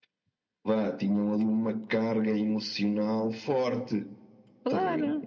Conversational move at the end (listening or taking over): taking over